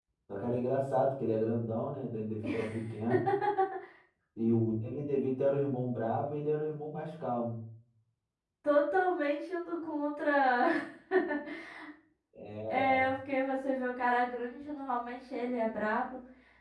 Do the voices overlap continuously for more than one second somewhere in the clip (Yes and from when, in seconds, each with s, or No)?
No